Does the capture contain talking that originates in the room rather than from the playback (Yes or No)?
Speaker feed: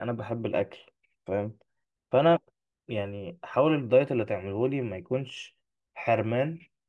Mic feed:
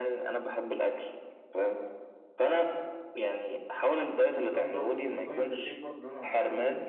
Yes